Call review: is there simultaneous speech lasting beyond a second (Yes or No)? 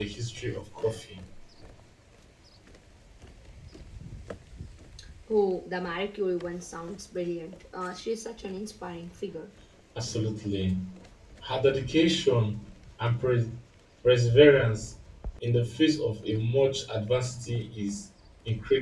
No